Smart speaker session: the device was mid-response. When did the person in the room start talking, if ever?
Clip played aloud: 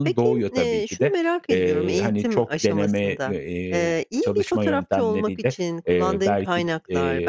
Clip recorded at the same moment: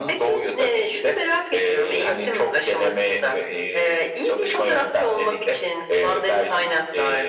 none

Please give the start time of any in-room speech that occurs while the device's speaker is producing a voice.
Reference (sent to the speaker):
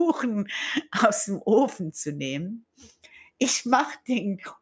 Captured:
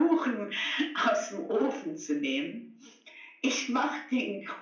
none

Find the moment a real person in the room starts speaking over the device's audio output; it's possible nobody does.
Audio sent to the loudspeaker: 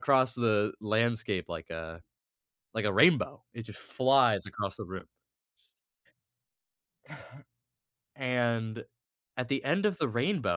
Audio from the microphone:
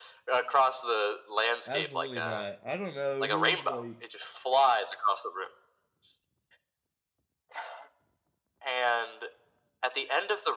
1.6 s

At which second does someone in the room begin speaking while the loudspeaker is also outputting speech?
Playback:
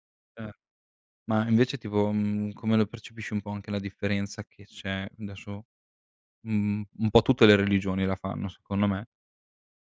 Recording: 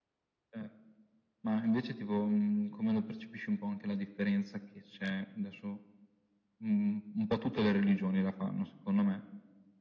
none

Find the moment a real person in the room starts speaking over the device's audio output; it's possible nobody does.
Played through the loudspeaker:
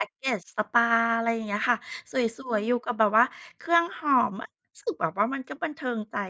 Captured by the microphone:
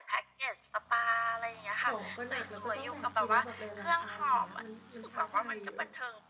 1.8 s

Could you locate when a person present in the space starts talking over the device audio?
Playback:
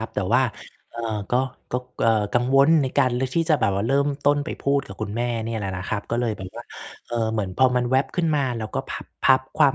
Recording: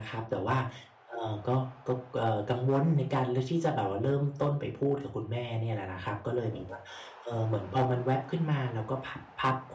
none

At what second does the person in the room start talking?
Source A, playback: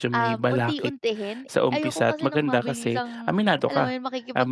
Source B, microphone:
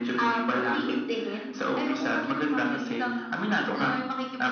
none

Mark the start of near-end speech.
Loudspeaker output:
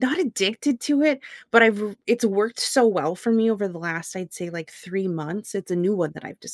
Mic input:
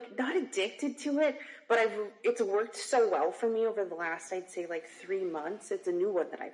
none

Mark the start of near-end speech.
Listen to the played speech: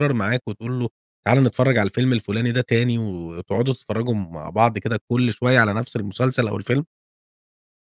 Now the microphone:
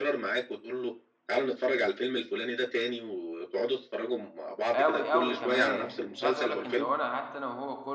4.8 s

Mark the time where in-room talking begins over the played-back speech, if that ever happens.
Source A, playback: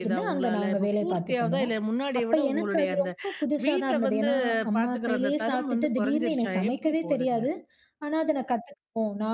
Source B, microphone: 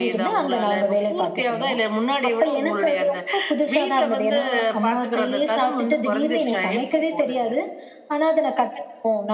none

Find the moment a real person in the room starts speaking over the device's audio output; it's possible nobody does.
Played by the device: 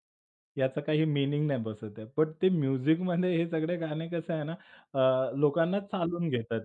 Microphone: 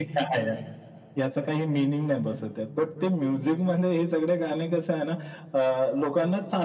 none

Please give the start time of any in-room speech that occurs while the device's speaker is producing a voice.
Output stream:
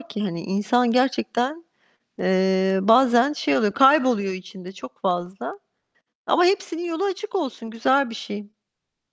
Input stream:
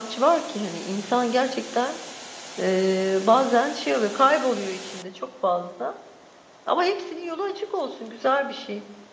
none

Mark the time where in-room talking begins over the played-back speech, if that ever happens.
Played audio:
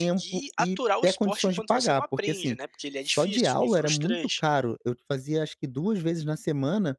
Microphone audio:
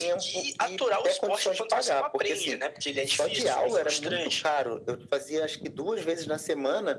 none

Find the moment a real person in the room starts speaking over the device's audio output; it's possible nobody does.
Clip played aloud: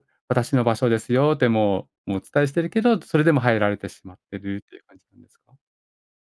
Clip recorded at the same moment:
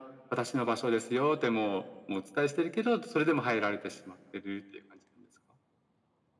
none

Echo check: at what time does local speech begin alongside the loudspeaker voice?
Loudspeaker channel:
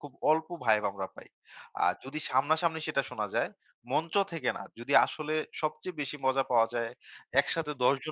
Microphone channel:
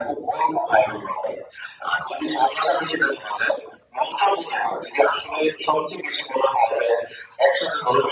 none

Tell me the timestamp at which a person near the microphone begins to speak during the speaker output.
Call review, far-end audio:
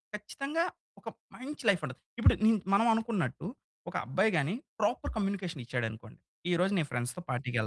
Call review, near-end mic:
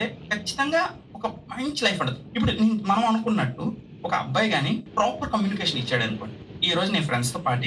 none

